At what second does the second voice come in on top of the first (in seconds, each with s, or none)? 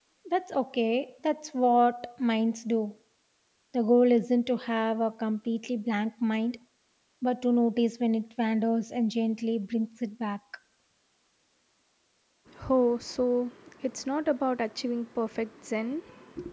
none